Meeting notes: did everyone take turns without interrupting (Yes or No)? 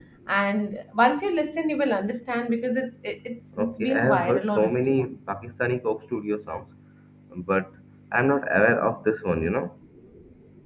No